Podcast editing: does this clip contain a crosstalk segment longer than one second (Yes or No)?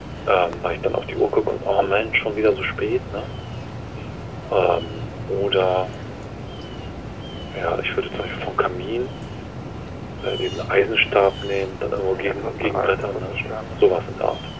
Yes